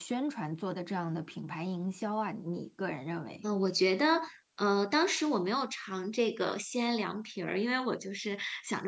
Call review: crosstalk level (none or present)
none